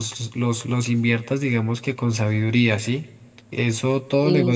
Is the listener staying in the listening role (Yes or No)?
Yes